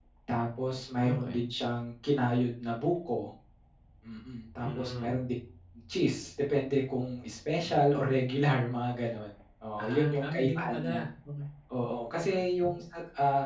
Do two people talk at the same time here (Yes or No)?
Yes